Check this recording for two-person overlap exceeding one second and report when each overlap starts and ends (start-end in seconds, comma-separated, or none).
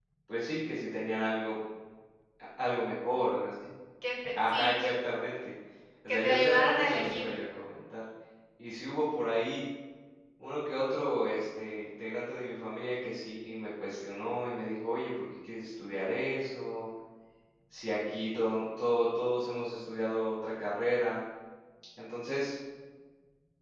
6.1-7.3